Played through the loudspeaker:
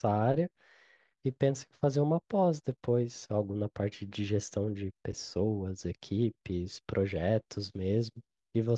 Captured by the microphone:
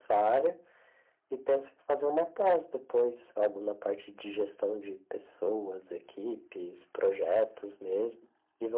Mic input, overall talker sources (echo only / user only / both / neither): echo only